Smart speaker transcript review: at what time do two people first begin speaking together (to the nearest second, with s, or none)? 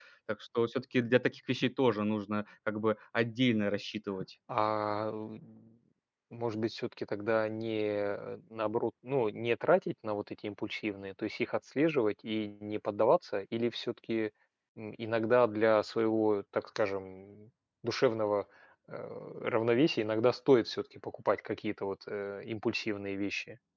none